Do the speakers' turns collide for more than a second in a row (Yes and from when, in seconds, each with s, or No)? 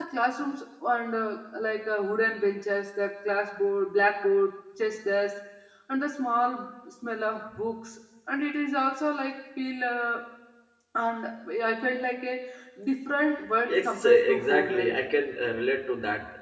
Yes, from 13.7 s